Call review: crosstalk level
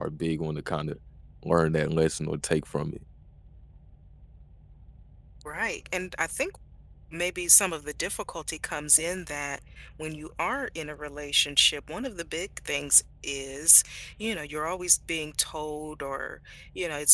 none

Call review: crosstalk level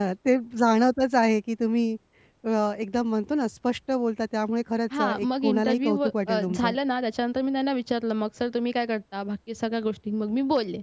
present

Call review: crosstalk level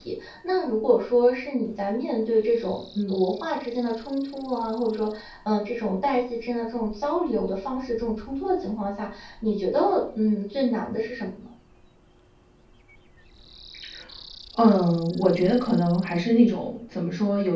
none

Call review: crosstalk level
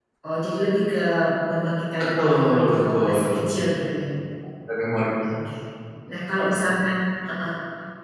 present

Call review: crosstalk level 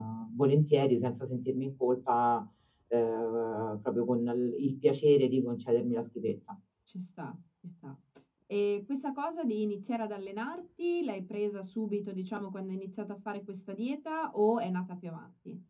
none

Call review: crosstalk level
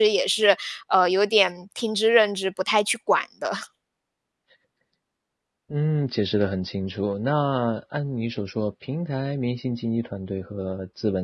none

